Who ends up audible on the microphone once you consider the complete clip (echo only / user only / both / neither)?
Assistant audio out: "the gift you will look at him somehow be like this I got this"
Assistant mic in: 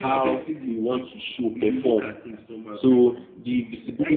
both